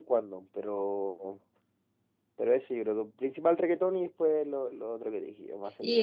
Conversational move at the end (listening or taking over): taking over